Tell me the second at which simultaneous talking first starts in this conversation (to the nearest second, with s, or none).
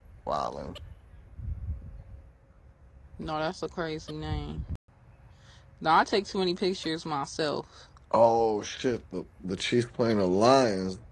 none